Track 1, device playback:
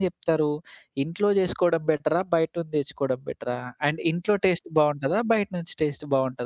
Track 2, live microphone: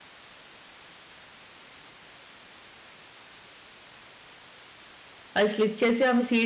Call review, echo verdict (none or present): none